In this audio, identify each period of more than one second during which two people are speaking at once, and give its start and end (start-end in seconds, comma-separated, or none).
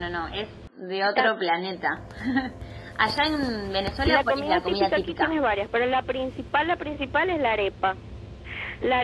4.1-5.3